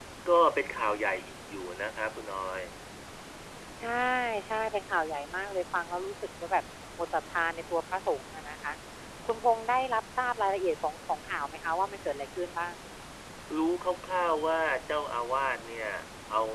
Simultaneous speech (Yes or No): No